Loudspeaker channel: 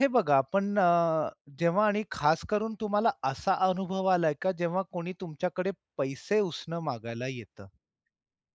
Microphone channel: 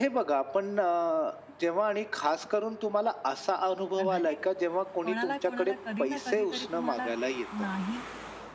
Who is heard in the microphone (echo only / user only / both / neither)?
both